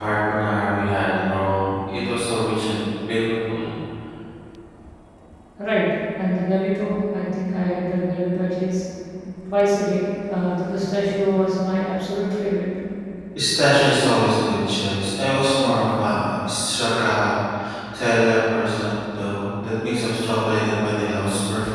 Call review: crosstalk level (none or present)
none